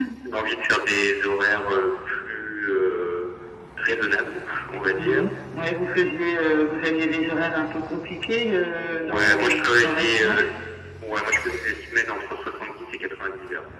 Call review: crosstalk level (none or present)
present